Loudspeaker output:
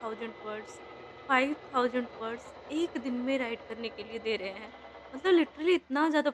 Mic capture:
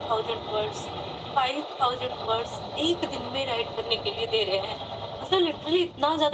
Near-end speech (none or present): none